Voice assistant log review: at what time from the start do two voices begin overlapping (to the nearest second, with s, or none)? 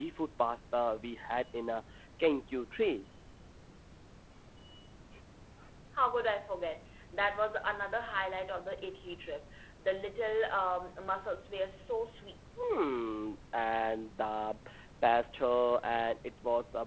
none